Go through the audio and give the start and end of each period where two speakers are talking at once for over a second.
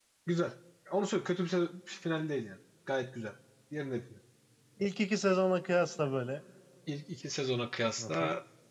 none

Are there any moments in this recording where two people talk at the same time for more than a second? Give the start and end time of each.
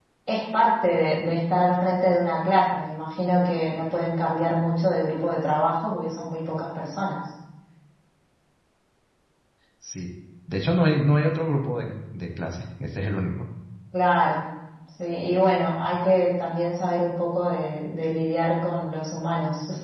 none

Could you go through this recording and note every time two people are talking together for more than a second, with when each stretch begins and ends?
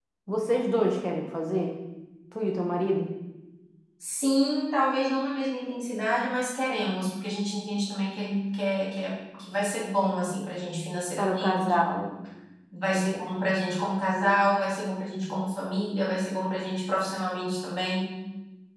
none

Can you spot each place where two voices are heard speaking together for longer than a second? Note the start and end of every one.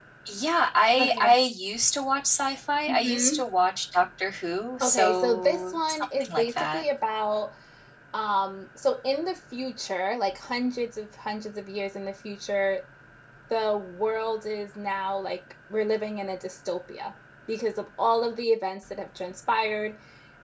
4.8-6.8

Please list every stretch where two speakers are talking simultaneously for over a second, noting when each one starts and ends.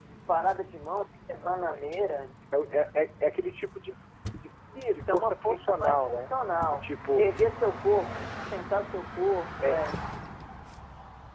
4.9-6.3

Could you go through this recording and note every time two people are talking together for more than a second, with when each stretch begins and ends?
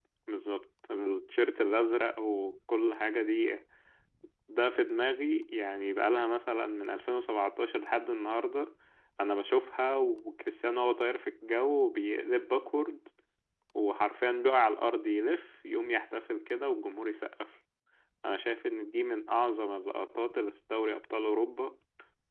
none

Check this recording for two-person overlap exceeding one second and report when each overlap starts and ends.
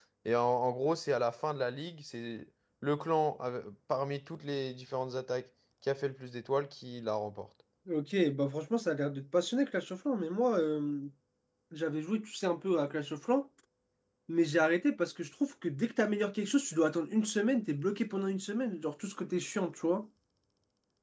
none

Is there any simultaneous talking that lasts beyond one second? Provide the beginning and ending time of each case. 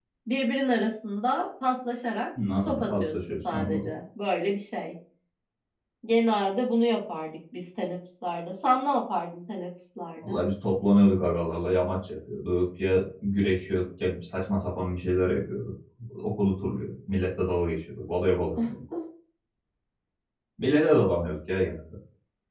2.6-3.9

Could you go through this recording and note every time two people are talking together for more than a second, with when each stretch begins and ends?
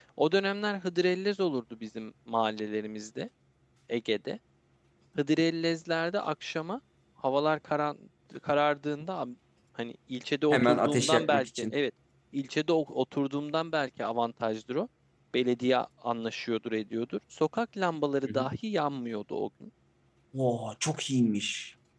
10.5-11.8

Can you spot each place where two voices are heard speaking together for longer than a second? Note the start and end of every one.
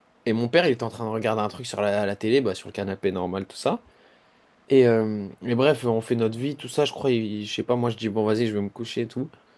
none

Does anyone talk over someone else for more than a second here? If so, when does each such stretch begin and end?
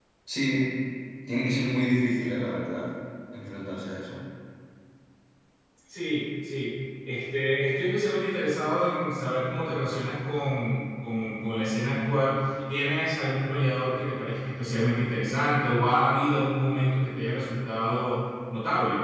none

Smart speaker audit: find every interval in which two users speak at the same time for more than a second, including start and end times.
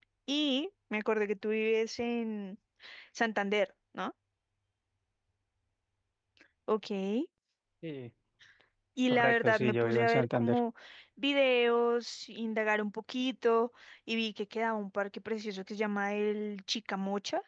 9.1-10.6

